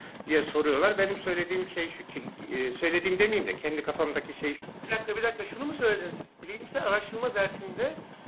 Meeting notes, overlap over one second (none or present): none